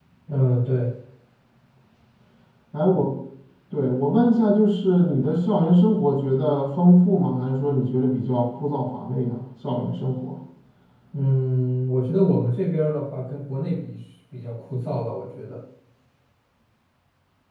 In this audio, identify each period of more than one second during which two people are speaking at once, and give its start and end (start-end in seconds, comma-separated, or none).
none